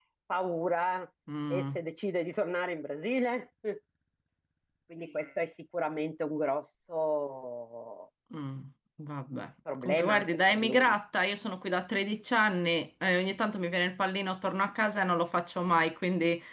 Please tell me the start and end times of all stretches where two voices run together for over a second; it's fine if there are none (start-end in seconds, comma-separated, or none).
9.7-11.0